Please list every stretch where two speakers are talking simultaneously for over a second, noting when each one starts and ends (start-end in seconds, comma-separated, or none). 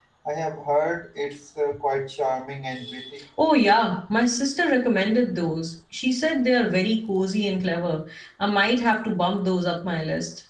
none